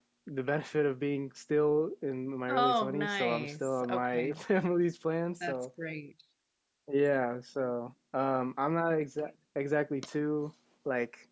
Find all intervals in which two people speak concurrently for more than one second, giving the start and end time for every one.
2.5-4.4

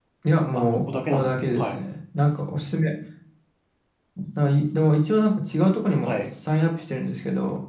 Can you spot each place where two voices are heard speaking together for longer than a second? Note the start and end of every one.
0.5-1.8

